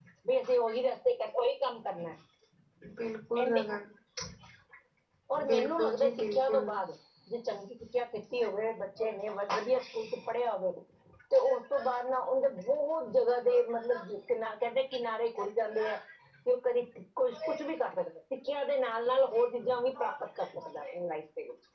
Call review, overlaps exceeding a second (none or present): present